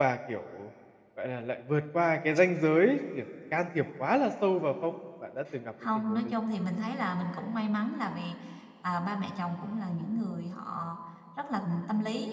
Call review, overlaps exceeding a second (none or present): none